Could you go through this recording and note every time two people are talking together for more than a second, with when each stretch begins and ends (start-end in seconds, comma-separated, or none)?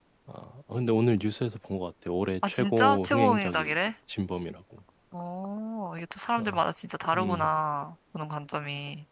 2.5-3.8